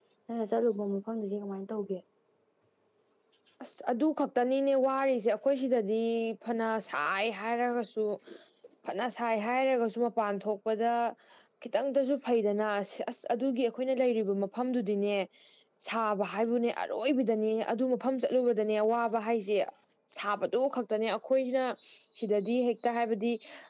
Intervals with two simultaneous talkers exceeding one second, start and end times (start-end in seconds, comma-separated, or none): none